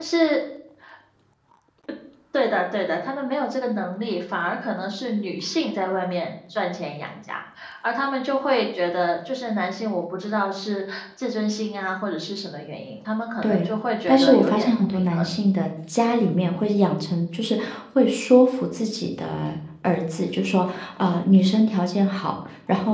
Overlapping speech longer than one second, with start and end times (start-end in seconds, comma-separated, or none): 14.1-15.3